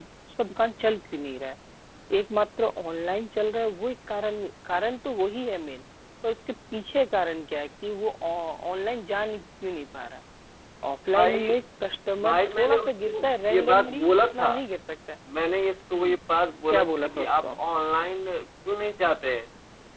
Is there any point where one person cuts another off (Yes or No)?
Yes